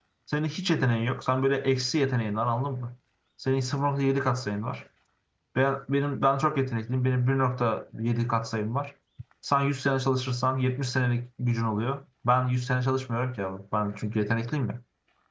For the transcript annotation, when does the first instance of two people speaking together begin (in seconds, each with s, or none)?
none